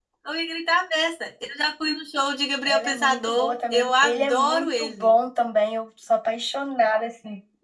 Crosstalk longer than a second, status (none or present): present